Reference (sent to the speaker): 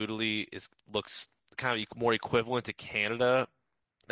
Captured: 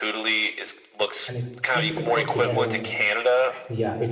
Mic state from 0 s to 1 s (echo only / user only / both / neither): echo only